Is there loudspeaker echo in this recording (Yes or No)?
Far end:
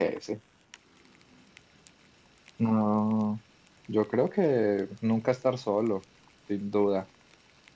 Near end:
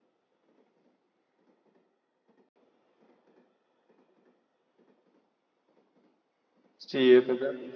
No